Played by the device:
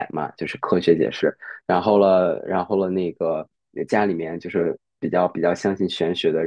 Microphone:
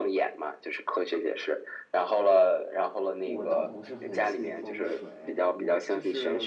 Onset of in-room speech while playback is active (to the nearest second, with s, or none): 3 s